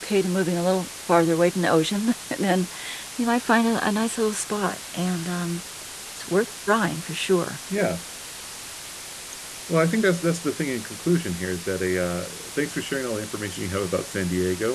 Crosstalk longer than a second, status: none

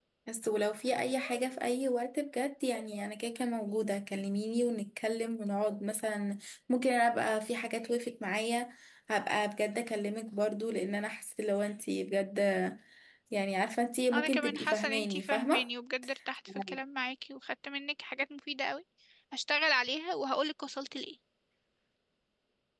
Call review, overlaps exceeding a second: present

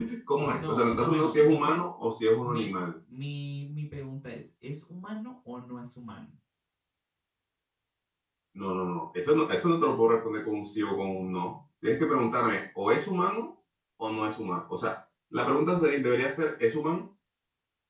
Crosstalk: present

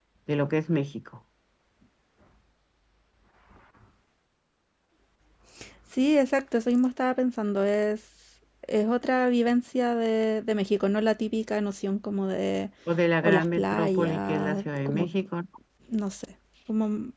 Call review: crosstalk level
present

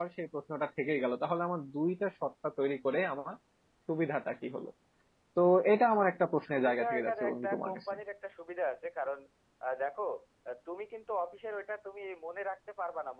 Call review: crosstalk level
present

